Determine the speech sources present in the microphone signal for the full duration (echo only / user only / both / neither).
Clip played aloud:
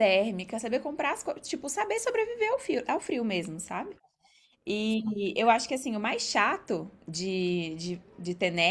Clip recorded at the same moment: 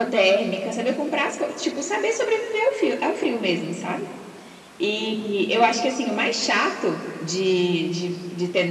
echo only